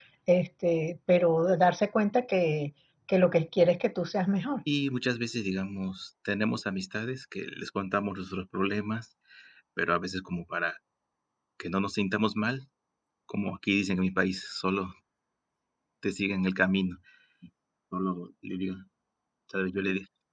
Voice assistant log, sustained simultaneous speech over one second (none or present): none